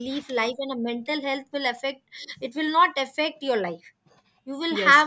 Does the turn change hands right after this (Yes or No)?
Yes